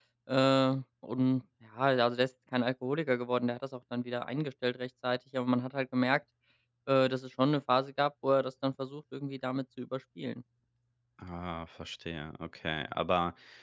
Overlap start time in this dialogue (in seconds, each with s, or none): none